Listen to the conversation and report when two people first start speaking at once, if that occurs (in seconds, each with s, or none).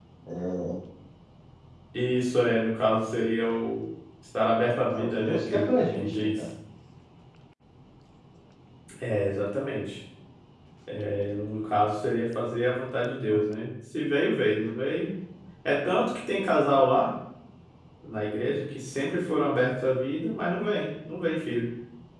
4.9 s